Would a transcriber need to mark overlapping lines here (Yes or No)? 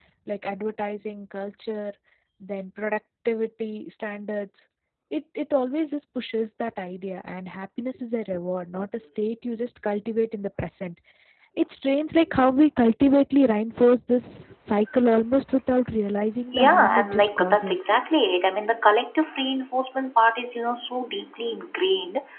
Yes